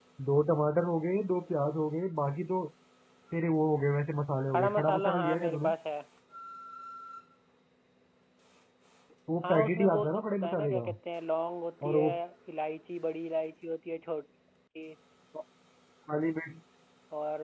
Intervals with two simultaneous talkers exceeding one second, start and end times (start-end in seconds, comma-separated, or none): 4.5-5.7, 9.4-10.9